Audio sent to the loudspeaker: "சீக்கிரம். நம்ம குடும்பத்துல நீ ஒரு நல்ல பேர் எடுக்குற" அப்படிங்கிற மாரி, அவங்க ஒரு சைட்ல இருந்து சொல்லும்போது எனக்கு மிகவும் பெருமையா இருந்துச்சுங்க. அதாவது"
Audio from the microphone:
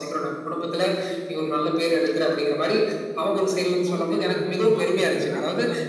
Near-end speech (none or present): present